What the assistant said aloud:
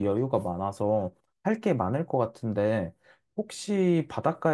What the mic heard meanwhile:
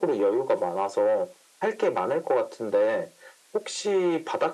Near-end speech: none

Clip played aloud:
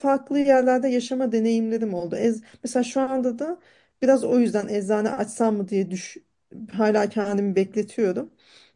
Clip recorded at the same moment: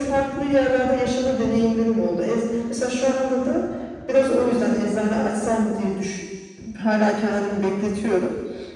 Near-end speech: none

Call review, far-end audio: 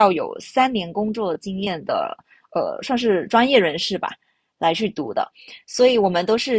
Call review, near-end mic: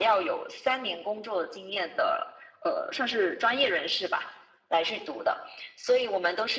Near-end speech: none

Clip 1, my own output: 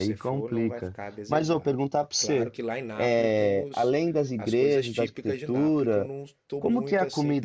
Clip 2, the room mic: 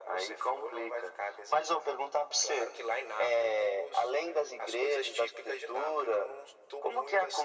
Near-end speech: none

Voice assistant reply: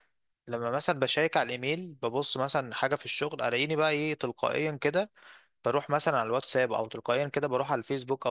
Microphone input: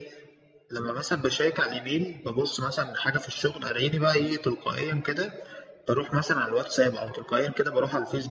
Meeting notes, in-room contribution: none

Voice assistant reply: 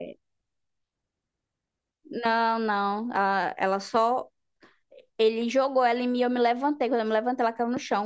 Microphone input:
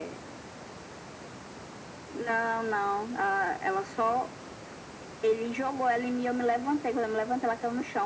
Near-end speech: none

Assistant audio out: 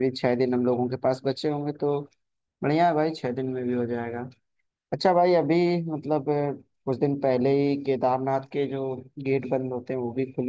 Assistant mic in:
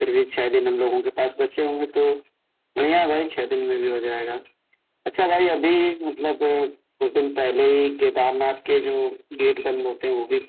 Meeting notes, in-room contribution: none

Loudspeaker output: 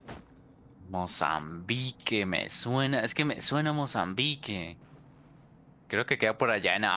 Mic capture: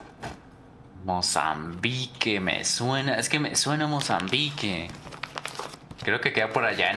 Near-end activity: none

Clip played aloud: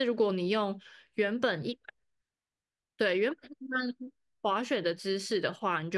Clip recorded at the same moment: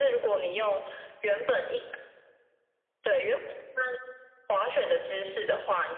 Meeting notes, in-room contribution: none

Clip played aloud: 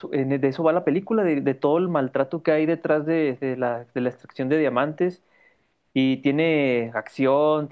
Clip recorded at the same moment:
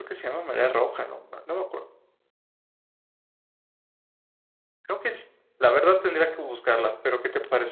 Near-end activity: present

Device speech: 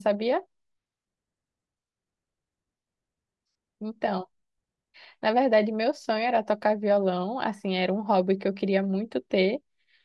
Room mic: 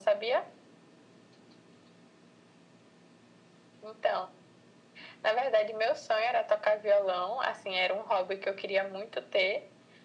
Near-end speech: none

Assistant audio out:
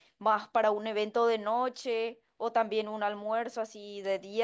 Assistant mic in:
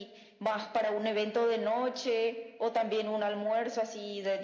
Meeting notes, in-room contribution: none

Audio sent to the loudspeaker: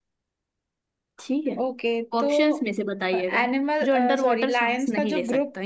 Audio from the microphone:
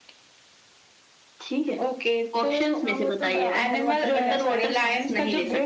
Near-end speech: present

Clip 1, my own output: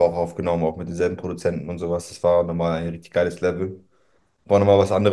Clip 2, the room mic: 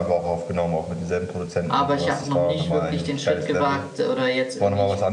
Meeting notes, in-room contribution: present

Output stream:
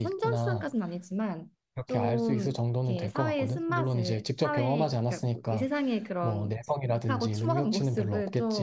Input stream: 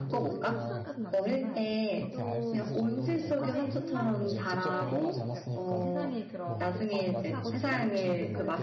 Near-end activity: present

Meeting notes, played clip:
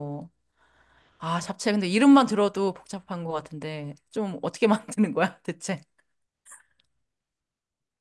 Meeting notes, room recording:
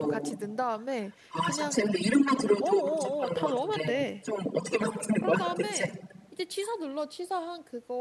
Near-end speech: present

